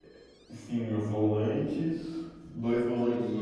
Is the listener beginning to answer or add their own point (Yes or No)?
No